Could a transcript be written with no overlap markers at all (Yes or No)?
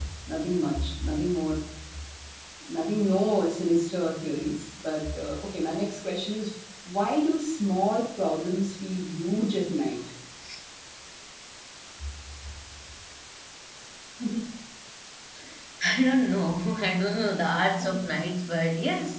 Yes